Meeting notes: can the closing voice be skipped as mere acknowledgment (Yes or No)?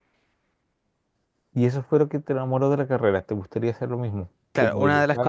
No